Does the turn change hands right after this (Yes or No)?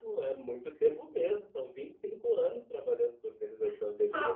Yes